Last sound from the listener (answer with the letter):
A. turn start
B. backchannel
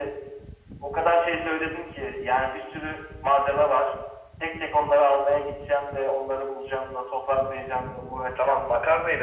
A